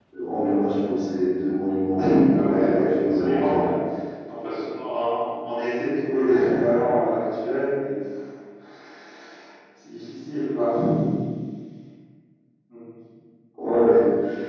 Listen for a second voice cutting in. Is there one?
Yes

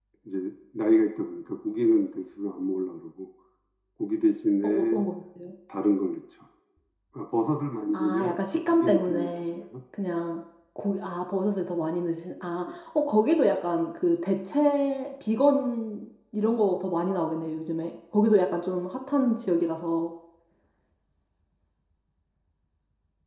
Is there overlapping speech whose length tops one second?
Yes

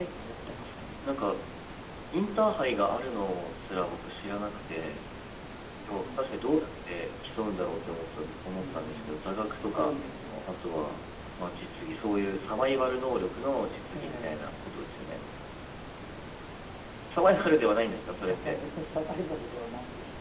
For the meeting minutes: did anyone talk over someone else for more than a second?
No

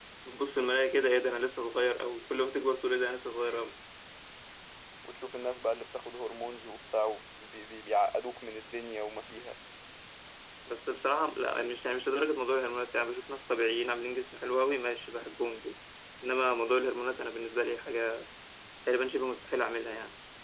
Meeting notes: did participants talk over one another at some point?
No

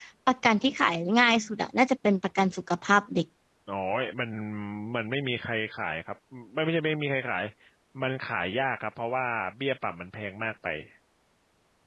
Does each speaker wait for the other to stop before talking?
Yes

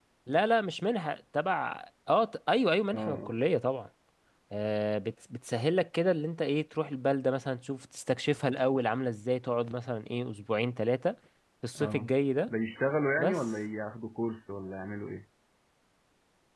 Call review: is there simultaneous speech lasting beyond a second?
No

